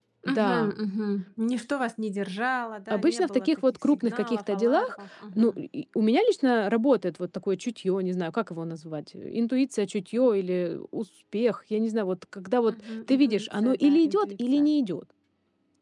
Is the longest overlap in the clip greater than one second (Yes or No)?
Yes